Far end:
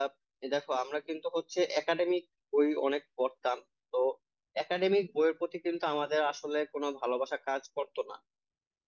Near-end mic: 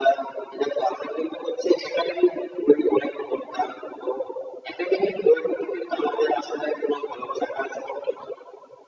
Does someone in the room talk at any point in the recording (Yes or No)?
No